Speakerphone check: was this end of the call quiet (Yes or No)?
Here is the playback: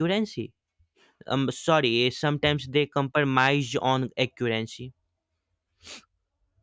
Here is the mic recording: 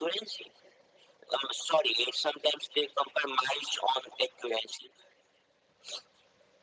Yes